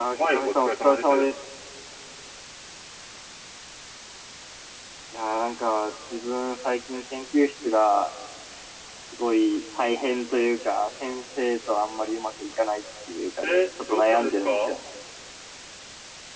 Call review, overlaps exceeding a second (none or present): present